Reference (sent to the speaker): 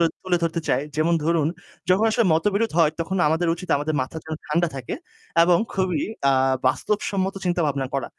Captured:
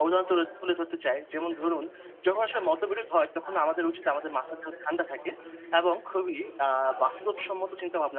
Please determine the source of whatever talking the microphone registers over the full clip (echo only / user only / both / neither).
both